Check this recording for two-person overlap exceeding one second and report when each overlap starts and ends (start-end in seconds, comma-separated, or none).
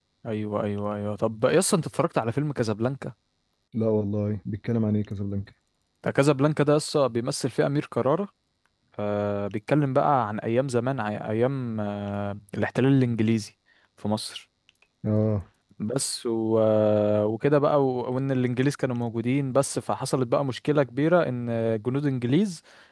none